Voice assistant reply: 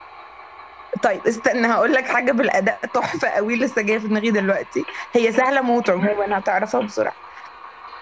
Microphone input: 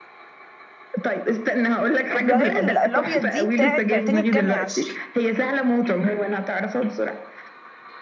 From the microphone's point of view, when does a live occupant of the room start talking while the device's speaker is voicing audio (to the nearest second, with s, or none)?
2 s